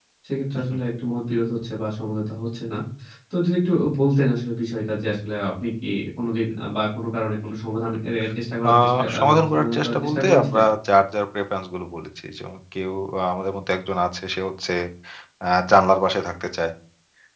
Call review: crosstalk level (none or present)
present